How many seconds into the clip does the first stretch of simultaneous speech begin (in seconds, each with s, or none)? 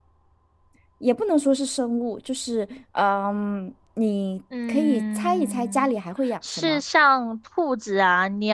4.7 s